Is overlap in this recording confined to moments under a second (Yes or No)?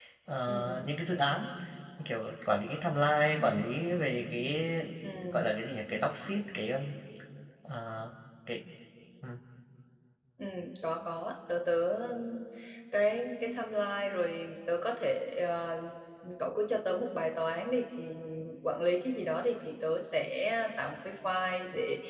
Yes